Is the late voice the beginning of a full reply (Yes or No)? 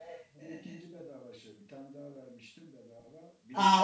Yes